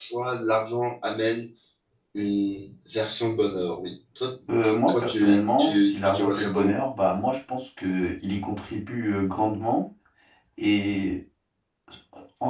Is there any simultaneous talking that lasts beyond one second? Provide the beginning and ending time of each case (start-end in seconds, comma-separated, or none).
4.9-6.8